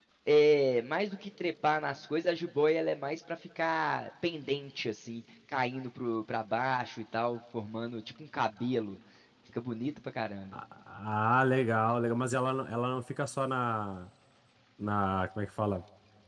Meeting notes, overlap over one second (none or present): none